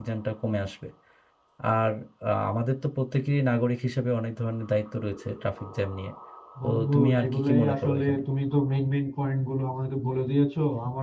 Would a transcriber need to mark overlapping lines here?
Yes, from 6.6 s

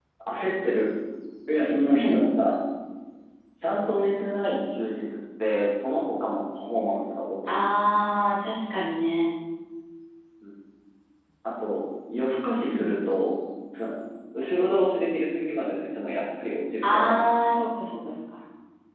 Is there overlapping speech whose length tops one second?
No

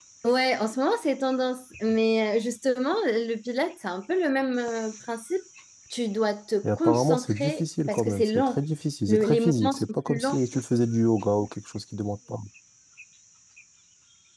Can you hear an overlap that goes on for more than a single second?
Yes, from 6.6 s

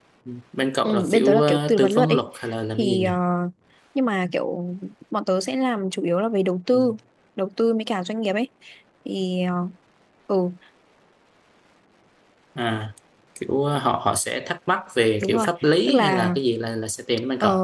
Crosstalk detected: Yes, from 0.8 s

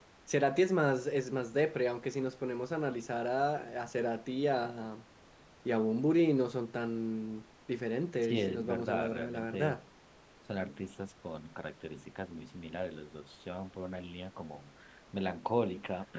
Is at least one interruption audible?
Yes, from 8.2 s

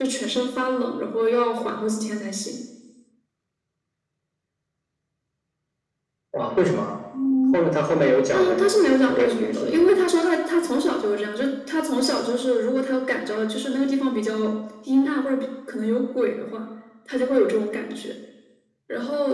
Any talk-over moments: Yes, from 8.3 s

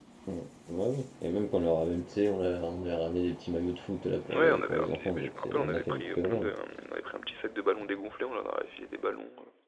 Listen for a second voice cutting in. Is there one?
Yes, from 4.3 s

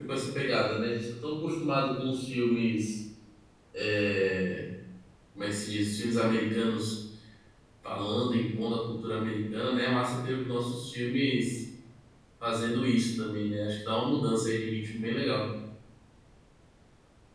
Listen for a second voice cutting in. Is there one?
No

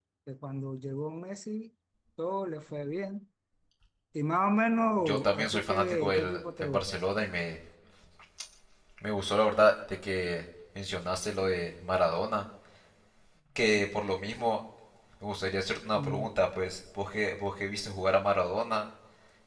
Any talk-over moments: Yes, from 5.0 s

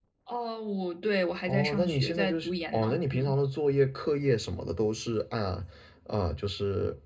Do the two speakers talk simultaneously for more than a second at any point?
Yes, from 1.5 s

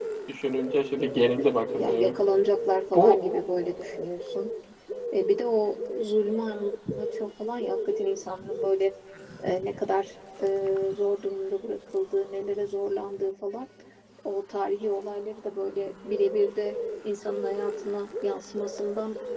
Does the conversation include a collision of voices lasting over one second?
No

